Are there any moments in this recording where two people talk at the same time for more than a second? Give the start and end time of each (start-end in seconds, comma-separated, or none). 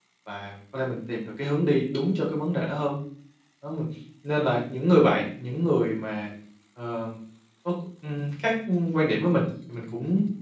none